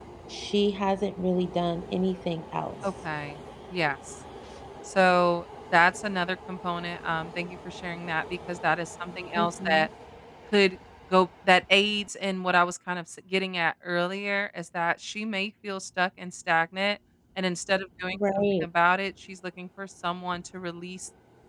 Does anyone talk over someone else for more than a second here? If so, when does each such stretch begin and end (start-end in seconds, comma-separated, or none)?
none